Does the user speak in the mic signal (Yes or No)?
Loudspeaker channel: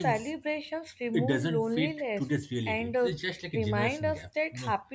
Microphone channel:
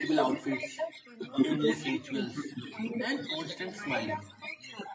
Yes